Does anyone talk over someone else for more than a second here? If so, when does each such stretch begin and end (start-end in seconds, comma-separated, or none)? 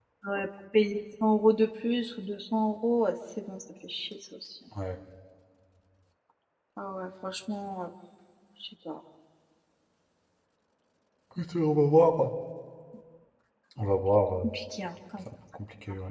none